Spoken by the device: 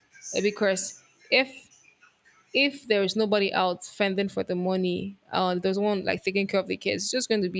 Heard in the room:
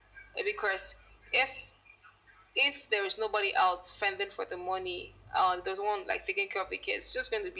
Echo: present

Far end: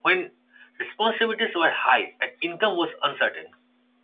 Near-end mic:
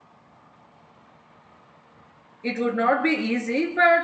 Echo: none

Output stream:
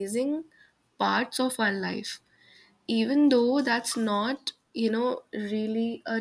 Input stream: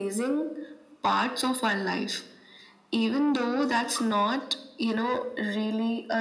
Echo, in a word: present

